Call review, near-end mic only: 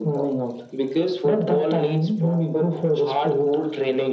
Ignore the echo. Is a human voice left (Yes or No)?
No